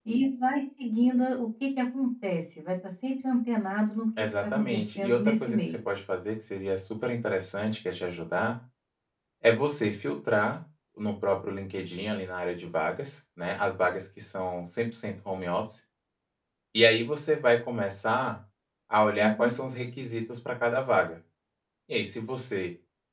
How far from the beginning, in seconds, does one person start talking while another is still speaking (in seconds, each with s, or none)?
4.2 s